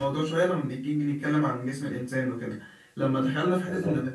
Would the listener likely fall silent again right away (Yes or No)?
Yes